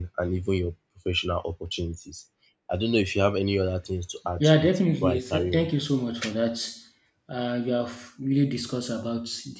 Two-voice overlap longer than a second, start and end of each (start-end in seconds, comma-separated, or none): 4.4-5.7